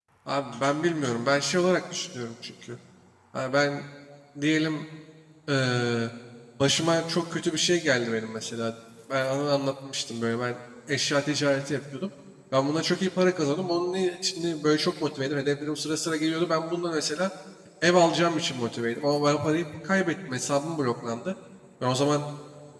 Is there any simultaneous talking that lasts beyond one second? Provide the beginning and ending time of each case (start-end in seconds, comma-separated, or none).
none